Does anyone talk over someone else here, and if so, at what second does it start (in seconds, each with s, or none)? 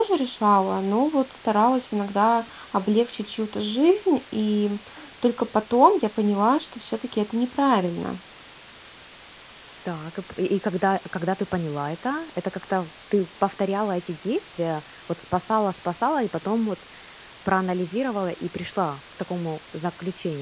none